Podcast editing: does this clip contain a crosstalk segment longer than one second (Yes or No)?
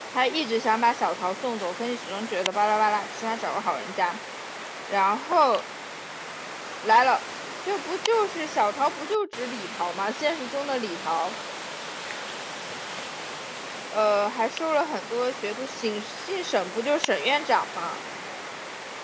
No